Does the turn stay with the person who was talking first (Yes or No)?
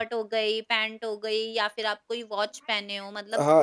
No